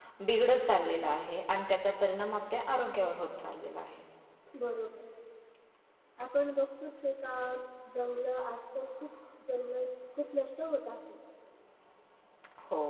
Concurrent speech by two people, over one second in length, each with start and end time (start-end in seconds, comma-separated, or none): none